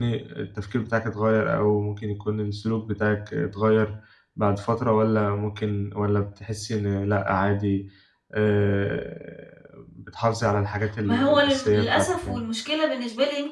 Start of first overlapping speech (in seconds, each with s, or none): 10.8 s